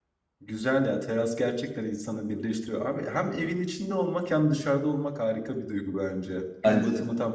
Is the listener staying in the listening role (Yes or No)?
Yes